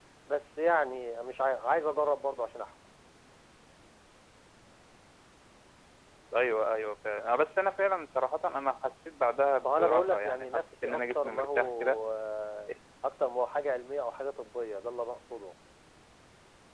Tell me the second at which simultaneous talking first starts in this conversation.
10 s

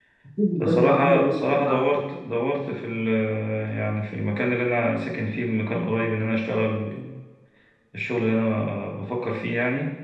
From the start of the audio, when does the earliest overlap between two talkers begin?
1 s

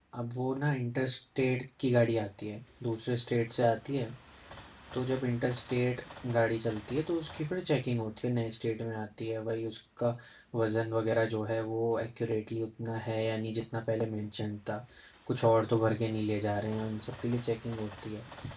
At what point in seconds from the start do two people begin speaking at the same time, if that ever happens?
none

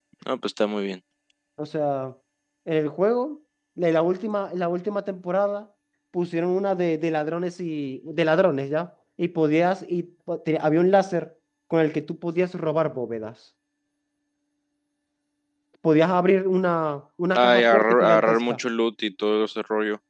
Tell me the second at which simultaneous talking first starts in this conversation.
17 s

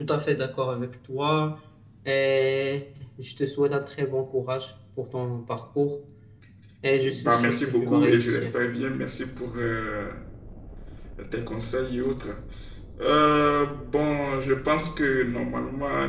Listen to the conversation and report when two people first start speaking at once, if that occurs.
7 s

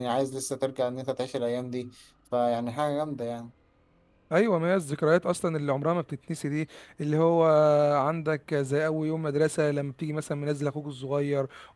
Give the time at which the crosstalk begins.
none

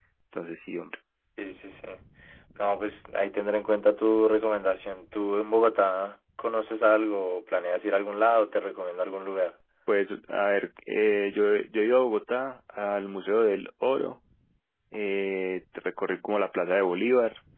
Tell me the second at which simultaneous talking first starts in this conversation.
none

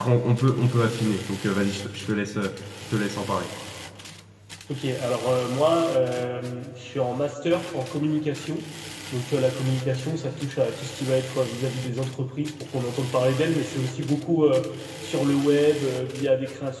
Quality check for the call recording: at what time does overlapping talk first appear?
none

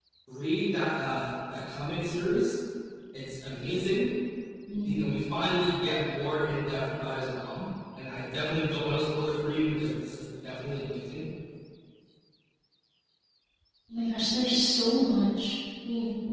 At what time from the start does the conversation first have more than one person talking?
none

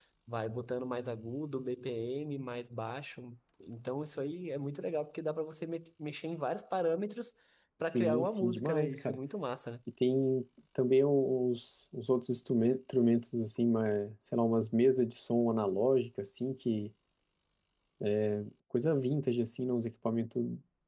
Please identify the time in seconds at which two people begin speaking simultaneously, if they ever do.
8 s

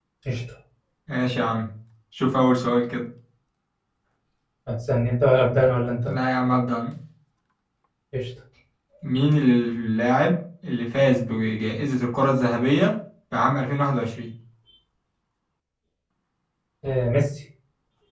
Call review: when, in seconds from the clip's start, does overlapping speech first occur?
none

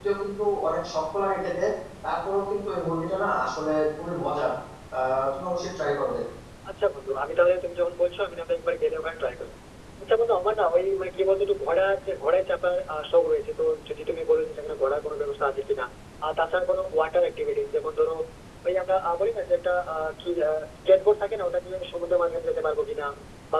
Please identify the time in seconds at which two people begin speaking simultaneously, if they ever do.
none

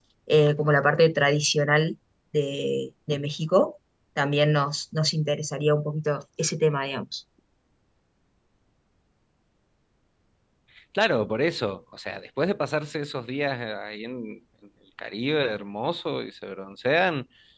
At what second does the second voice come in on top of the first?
none

